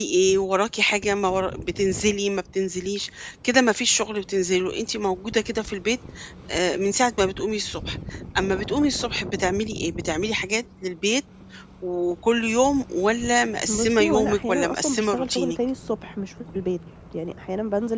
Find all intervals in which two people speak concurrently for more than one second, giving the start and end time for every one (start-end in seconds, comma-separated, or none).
13.7-15.6